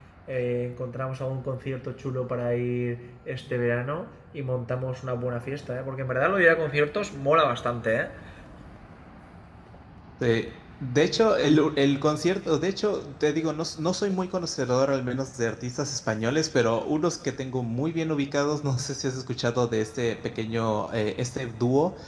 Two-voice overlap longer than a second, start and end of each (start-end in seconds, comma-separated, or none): none